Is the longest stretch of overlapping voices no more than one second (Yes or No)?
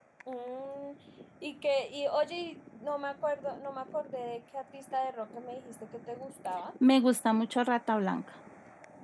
Yes